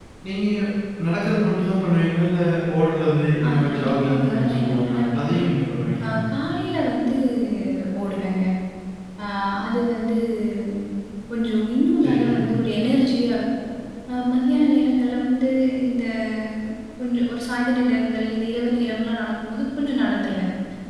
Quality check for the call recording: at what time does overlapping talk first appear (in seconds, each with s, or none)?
3.5 s